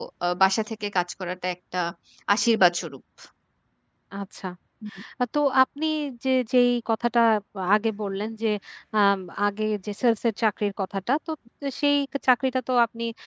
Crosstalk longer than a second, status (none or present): none